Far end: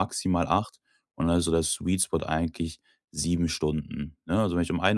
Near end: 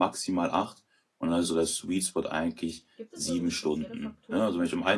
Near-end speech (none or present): present